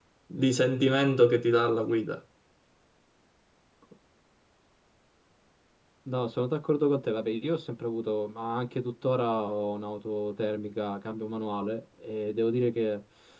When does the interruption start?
none

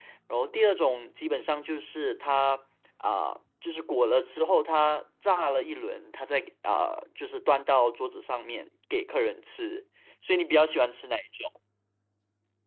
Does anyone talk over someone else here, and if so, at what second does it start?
none

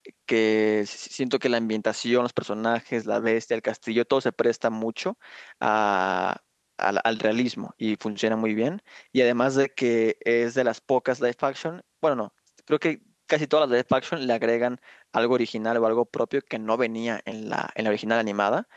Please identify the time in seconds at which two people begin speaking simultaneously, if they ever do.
none

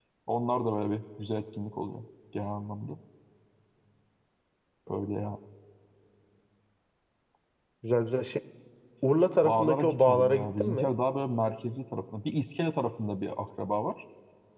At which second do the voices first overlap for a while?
9.4 s

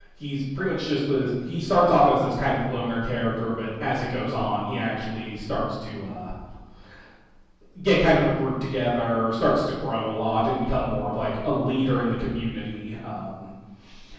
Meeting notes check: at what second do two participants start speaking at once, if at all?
none

